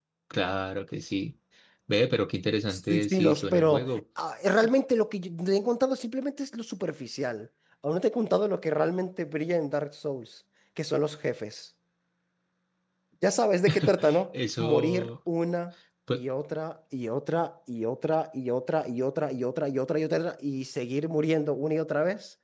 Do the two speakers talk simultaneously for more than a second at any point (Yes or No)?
Yes